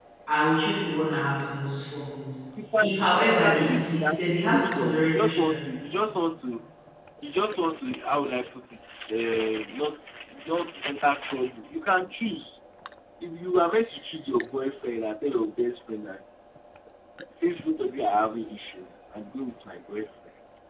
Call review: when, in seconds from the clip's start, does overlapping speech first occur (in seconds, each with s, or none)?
2.8 s